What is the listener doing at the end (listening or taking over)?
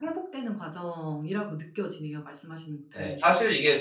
taking over